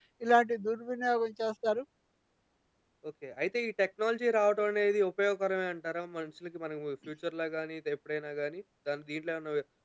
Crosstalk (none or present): none